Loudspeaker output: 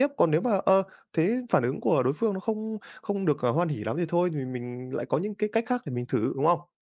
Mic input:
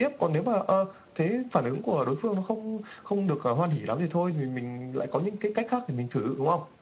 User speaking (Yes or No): No